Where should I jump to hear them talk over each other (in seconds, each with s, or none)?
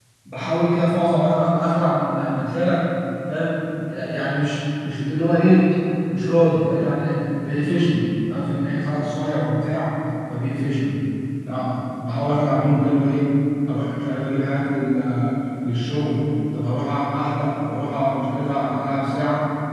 none